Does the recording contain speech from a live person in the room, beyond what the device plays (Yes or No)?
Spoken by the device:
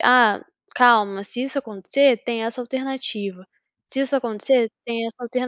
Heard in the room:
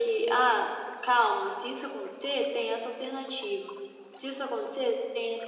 No